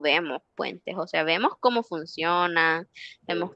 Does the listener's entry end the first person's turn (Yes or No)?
No